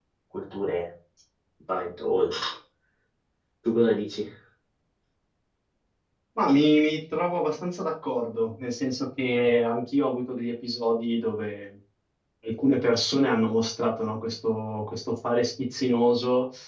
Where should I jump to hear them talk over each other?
none

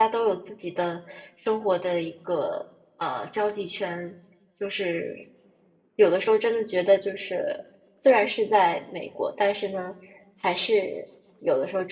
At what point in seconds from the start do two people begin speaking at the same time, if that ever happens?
none

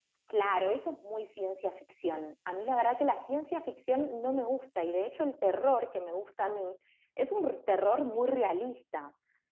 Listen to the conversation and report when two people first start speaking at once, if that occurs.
none

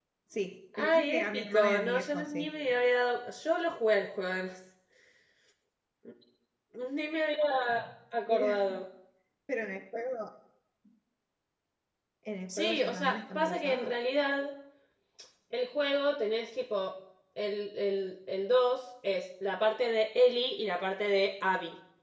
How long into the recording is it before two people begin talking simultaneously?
0.8 s

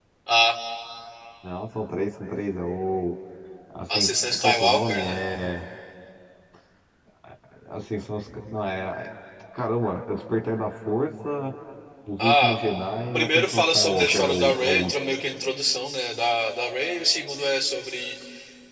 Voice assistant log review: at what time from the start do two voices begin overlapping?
3.9 s

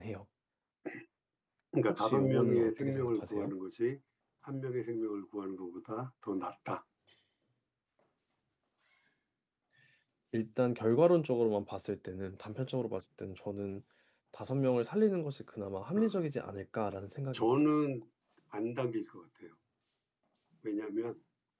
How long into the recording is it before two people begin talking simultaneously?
1.9 s

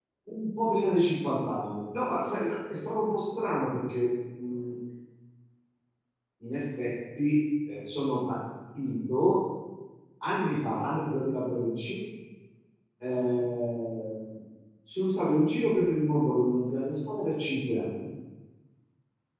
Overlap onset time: none

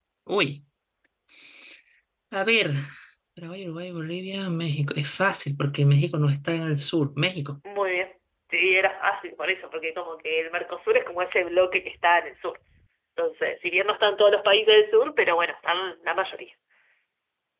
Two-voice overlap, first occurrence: none

